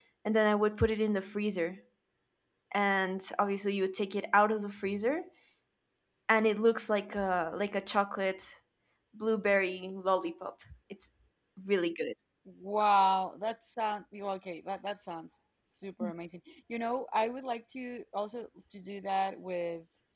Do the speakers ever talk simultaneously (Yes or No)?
No